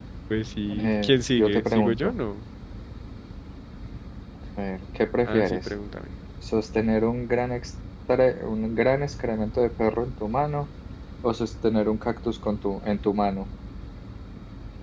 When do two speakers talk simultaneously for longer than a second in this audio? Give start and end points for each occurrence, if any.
0.7-2.1

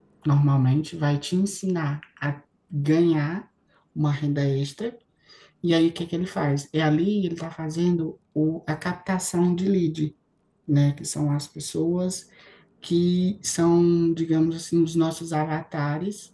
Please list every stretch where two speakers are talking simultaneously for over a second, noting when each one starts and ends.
none

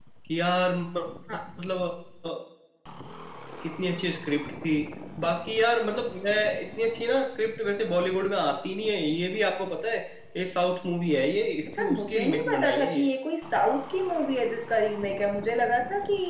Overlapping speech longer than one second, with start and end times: 11.8-13.1

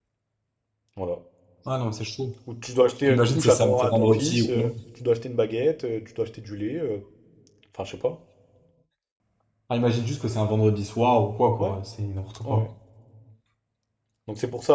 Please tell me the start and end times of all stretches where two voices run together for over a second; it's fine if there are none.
3.1-4.7

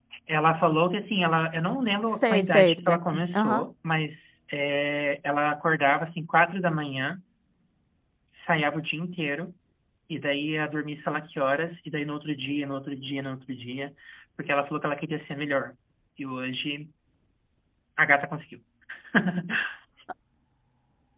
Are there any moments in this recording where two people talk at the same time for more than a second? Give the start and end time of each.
2.2-3.6

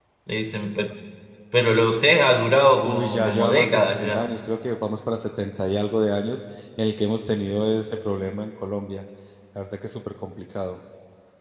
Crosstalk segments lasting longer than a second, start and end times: 2.8-4.2

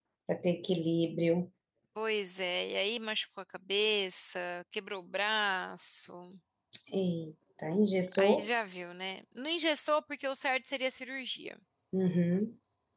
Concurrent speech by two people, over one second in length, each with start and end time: none

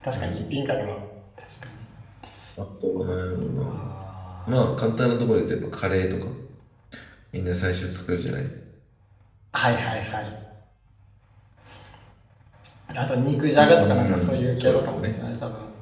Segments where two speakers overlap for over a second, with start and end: 13.6-15.2

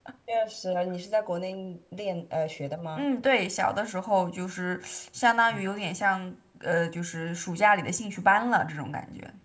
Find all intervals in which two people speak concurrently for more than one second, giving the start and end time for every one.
none

